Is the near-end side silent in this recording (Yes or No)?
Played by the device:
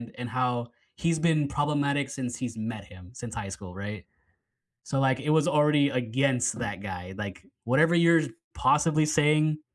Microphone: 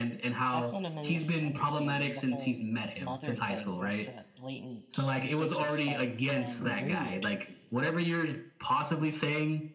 No